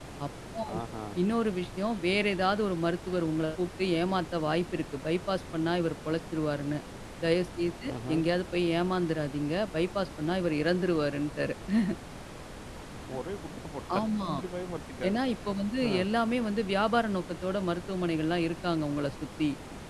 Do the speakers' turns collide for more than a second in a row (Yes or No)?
No